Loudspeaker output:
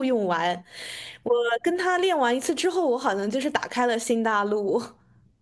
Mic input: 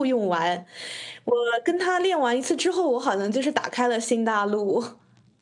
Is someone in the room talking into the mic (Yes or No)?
No